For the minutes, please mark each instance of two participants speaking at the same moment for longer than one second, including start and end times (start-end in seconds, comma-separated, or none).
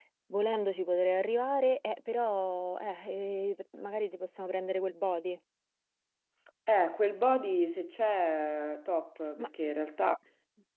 none